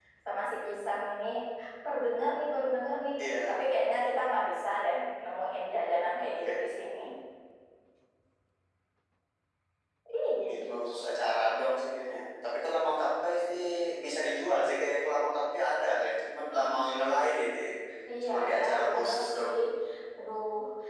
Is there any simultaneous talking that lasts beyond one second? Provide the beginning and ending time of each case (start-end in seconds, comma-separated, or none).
18.2-19.5